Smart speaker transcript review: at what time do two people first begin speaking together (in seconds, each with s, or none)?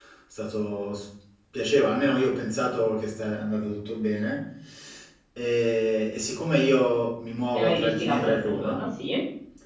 7.5 s